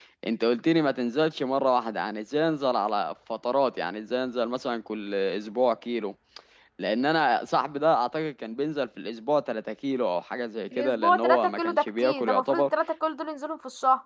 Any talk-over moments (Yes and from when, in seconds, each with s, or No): Yes, from 10.7 s